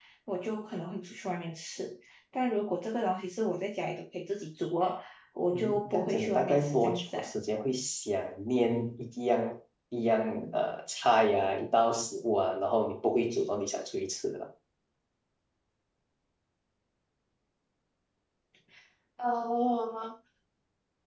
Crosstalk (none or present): present